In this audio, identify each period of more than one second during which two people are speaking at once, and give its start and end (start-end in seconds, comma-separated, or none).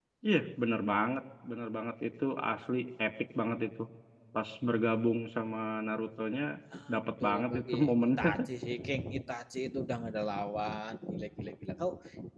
6.9-8.3